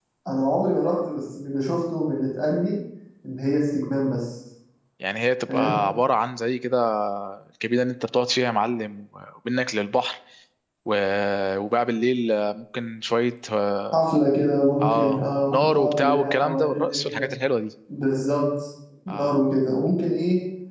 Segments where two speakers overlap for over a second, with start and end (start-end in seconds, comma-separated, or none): 14.8-17.2